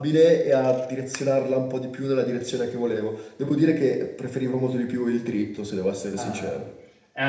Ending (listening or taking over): taking over